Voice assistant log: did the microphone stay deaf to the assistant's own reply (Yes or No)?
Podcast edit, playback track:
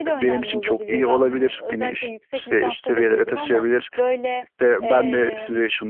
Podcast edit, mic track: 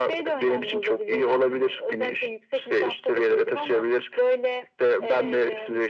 No